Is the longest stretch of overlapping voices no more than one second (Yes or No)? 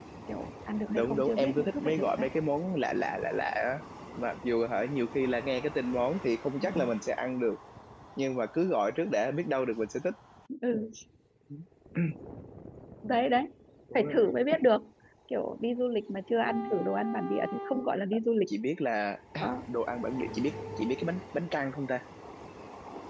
No